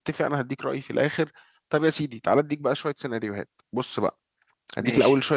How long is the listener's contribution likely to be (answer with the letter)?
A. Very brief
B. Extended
A